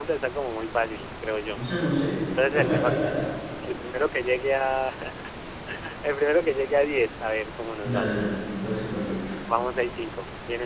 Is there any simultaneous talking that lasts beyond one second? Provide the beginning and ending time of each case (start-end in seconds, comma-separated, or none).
none